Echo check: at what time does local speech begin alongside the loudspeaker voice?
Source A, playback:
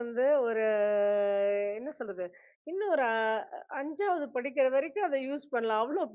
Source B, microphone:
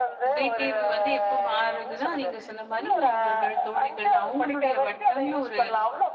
0.3 s

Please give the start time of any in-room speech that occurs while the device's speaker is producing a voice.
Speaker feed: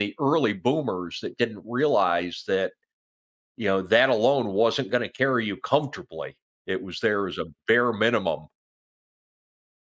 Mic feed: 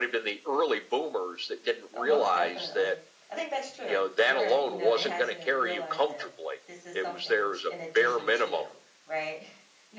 1.9 s

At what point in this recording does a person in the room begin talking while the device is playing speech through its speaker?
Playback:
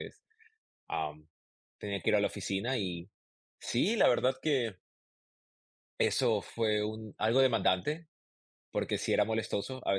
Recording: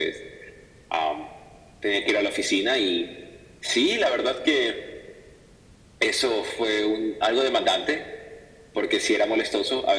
none

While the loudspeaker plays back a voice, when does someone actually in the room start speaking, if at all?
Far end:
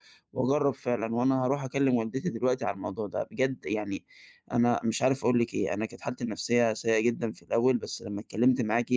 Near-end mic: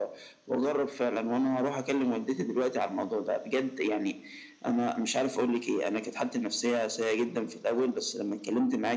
none

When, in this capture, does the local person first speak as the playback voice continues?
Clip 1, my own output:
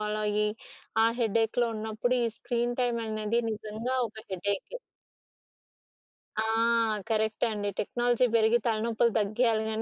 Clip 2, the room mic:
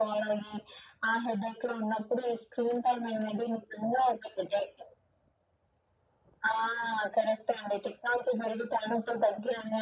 none

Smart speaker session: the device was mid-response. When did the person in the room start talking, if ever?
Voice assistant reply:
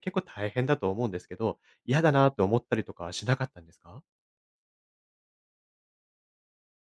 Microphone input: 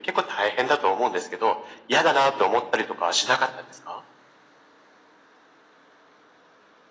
none

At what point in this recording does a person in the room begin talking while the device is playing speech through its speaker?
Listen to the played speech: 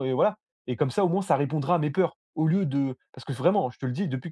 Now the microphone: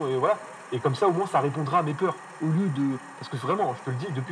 none

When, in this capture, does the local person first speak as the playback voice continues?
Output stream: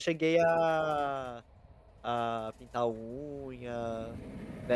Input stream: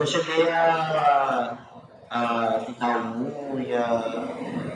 none

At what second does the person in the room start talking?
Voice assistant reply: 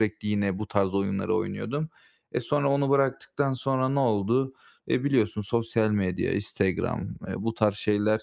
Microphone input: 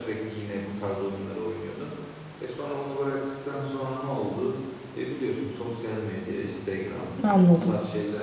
7.2 s

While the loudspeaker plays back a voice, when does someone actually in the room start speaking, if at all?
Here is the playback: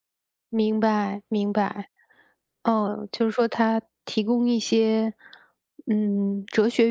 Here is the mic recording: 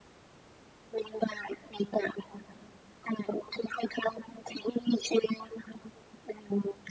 none

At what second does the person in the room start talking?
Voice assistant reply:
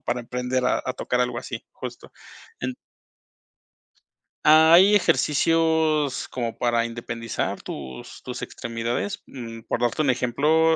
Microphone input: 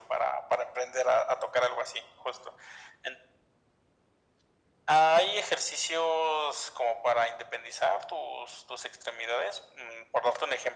none

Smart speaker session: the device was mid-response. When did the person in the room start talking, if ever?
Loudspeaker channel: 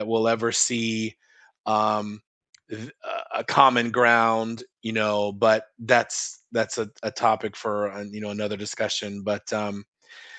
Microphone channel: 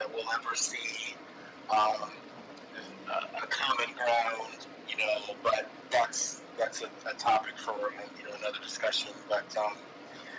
none

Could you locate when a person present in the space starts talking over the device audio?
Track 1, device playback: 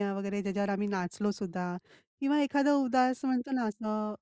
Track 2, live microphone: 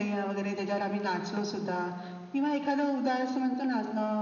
none

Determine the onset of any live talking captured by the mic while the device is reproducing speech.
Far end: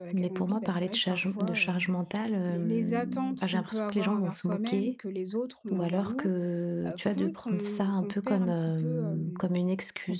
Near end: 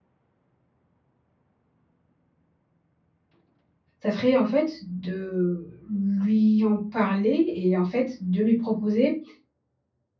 4.0 s

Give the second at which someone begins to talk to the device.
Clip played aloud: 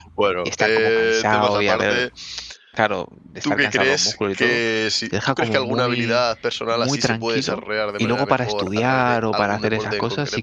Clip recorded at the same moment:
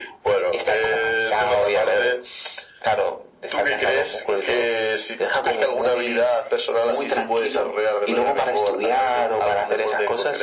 none

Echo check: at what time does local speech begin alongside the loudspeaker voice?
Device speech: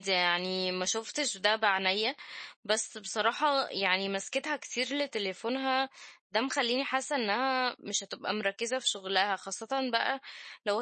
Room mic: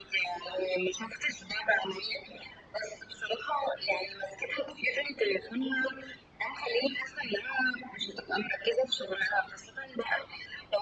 none

